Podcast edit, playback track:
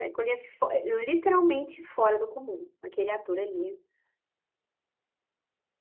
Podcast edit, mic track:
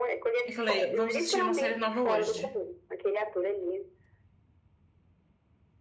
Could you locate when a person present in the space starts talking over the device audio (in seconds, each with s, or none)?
0.4 s